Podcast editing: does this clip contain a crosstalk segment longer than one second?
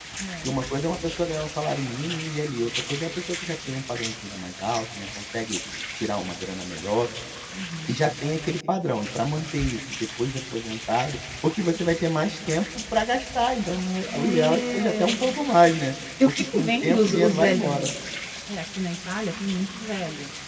Yes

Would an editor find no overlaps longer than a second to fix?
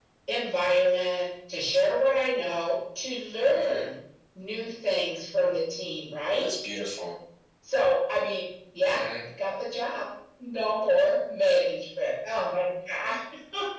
Yes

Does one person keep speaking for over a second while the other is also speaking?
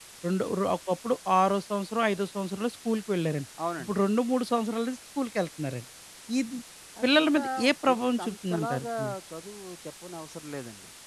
Yes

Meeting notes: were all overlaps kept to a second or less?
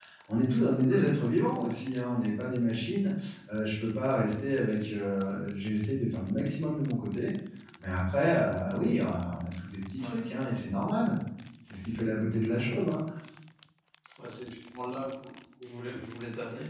Yes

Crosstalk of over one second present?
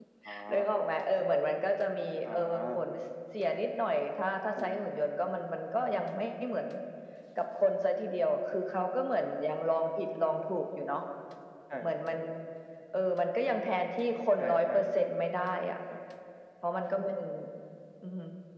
No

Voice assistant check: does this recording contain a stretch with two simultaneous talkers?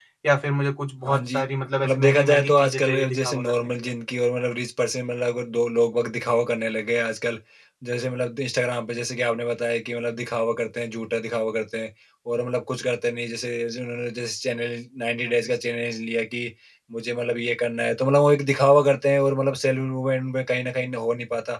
Yes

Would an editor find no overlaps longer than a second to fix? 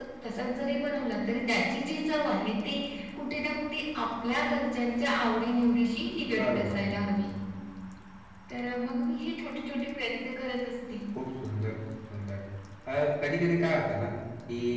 Yes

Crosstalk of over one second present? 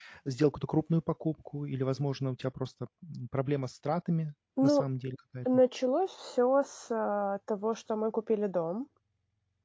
No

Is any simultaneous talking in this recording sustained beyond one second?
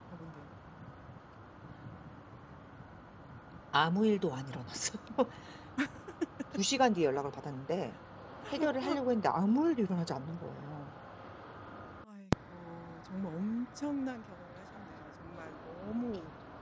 No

